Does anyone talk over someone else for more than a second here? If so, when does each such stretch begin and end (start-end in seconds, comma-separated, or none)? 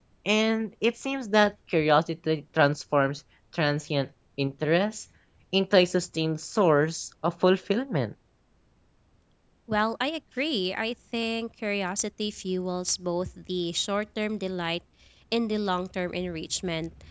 none